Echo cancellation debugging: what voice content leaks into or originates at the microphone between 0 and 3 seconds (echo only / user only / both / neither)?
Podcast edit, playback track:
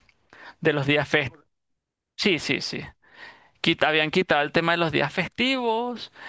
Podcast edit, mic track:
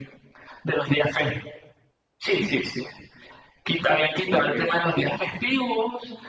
echo only